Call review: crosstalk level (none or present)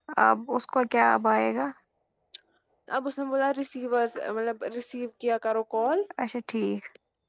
none